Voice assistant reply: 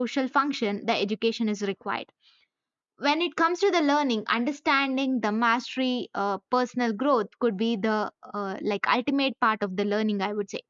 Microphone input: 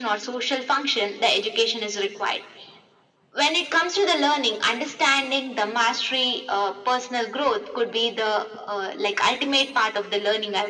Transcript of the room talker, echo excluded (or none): none